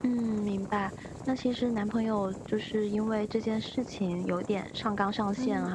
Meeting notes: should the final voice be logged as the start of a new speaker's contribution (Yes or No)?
No